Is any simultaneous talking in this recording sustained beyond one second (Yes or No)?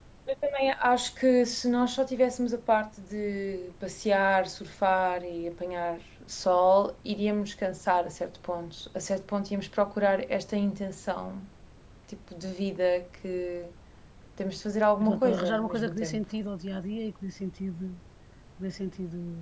Yes